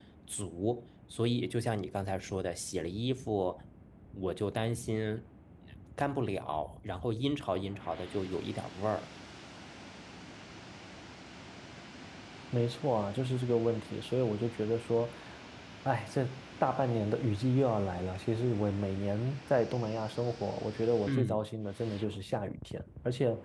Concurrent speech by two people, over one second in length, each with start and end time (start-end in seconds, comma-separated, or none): none